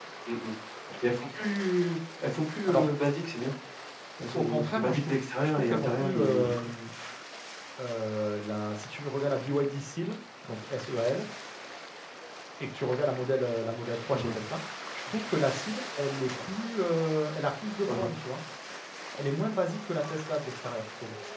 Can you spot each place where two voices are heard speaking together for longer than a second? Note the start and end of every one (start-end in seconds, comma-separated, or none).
4.3-6.7